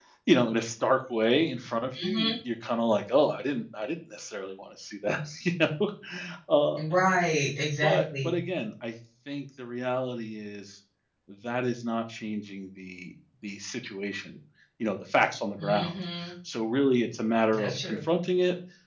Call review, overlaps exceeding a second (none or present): none